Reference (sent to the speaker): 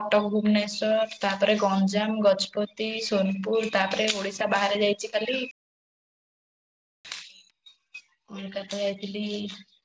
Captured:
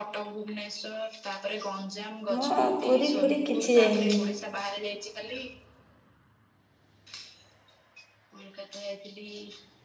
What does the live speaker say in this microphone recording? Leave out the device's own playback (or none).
ମୁଁ ପୁରୀ ଫୁରୀ କିଛି ଯାଇନି।